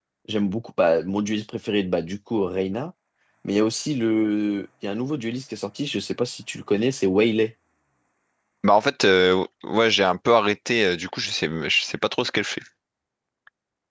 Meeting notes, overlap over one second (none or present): none